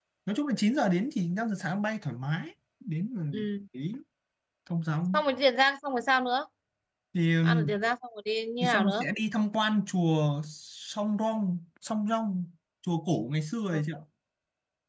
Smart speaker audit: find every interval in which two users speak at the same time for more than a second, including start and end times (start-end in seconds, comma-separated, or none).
none